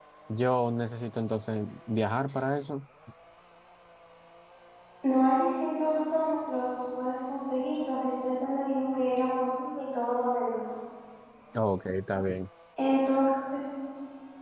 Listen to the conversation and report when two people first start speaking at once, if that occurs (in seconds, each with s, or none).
none